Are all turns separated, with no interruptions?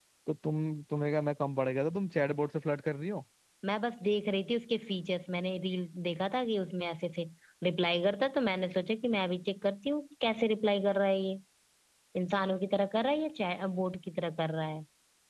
Yes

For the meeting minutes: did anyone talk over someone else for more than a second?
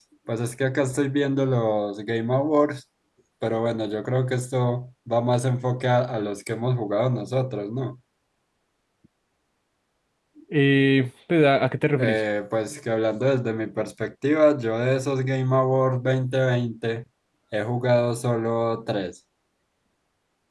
No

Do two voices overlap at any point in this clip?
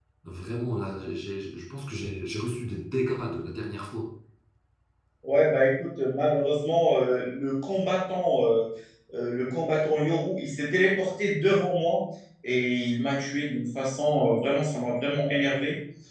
No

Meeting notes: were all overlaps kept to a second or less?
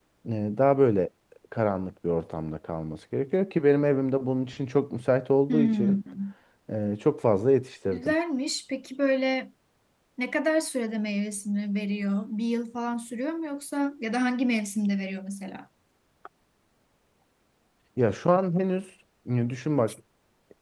Yes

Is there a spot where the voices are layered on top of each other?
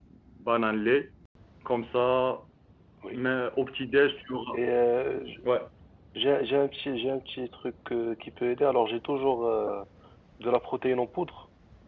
No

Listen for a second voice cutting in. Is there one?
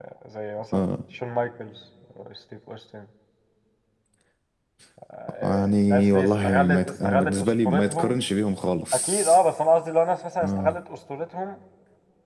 Yes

